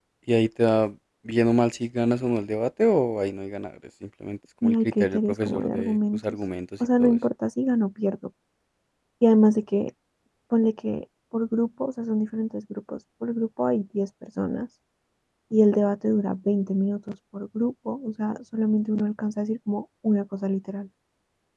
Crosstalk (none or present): present